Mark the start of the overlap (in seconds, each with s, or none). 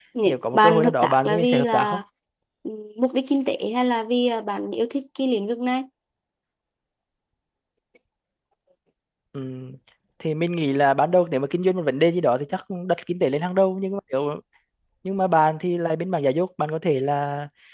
0.5 s